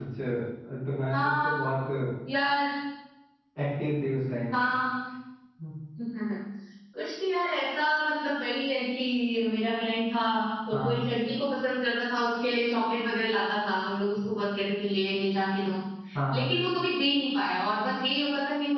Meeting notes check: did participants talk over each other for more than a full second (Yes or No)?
No